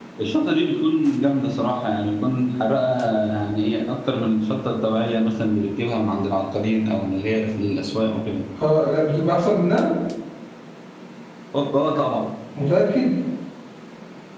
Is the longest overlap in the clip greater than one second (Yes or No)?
No